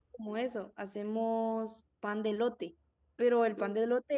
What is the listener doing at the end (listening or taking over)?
listening